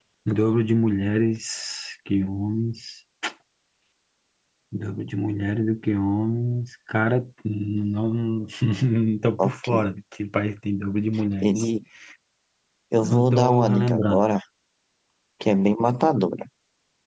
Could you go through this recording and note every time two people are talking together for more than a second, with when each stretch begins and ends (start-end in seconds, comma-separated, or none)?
13.0-14.2